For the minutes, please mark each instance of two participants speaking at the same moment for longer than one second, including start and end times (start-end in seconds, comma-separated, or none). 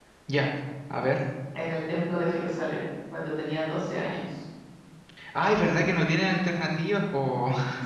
none